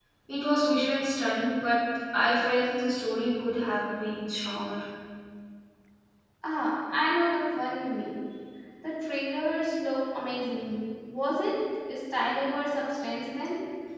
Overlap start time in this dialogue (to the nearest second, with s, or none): none